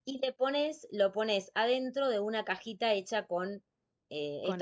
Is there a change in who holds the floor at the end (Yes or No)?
No